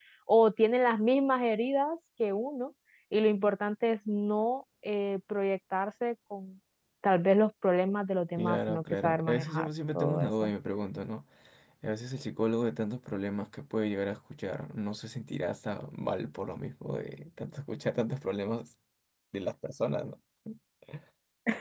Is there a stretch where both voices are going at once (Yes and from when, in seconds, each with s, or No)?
Yes, from 8.4 s